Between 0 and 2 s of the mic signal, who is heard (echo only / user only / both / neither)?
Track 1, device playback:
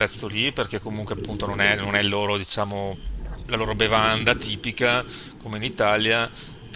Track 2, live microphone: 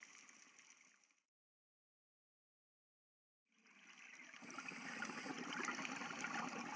neither